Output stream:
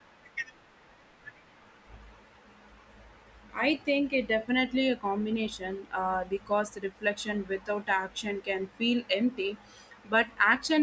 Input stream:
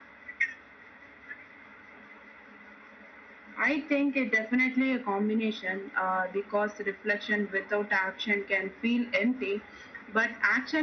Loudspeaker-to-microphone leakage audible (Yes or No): Yes